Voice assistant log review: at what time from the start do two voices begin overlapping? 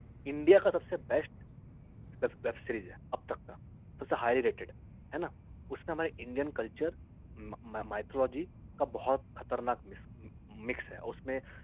none

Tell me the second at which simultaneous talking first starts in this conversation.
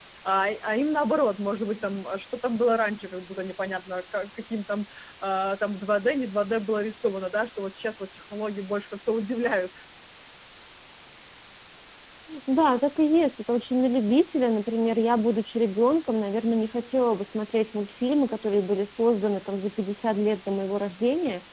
none

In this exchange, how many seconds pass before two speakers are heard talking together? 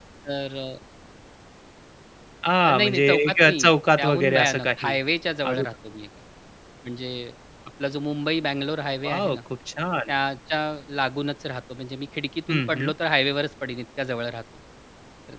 2.6 s

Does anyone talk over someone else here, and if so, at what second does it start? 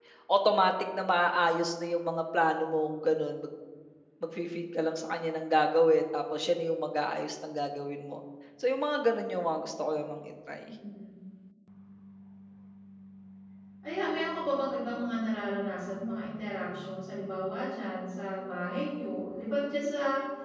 none

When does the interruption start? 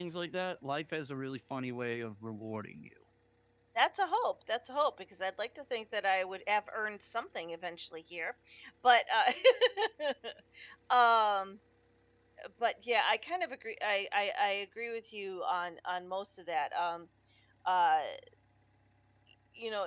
none

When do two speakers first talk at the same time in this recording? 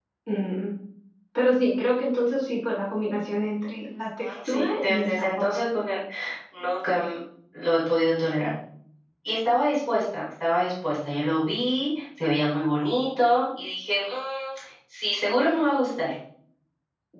4.2 s

